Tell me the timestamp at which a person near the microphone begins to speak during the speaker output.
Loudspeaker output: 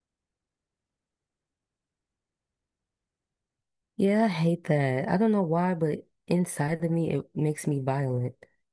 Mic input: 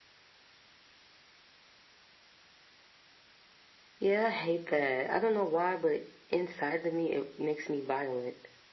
none

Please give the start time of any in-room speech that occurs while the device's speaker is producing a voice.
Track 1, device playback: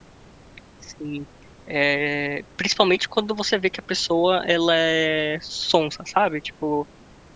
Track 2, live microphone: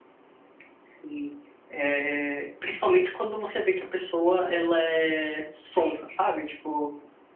none

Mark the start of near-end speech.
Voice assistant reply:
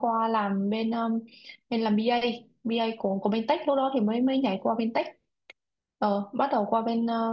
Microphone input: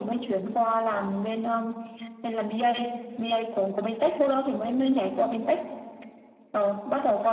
none

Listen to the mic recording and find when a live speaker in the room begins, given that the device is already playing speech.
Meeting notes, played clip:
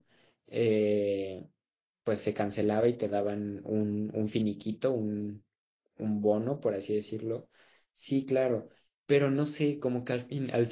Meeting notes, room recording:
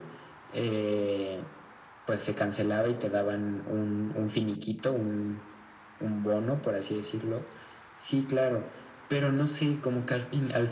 none

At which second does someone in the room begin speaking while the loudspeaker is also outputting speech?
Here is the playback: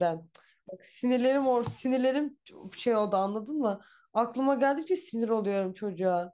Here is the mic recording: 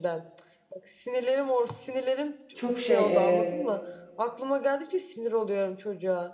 2.5 s

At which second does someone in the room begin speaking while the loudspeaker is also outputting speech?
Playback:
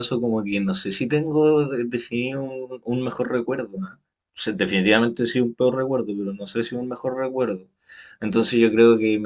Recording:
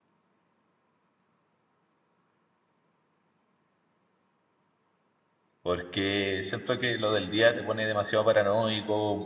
5.6 s

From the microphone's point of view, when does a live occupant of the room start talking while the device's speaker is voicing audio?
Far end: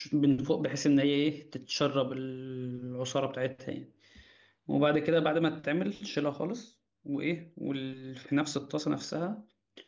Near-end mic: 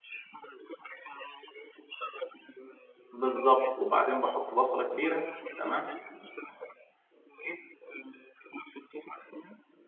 3.1 s

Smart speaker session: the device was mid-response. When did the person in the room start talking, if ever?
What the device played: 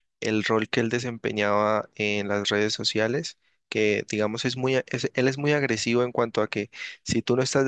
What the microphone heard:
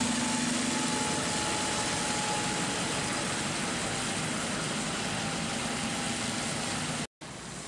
none

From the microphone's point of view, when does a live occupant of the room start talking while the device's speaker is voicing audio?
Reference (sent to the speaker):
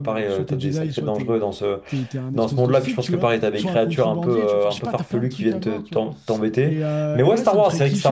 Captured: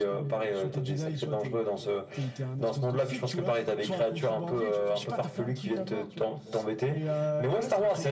none

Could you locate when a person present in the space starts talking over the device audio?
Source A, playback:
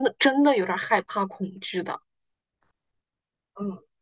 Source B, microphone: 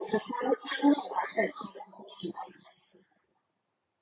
none

